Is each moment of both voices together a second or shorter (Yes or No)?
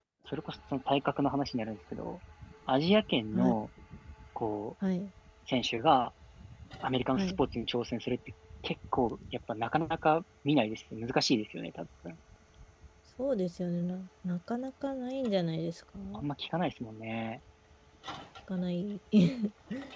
Yes